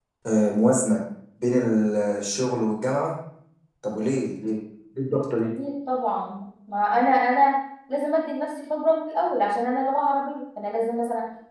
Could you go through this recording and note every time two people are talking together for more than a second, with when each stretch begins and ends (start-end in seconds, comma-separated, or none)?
none